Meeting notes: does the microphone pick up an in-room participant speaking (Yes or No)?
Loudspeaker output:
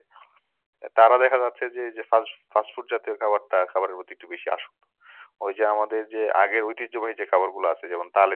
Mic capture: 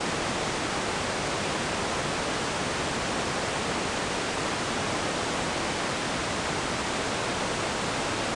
No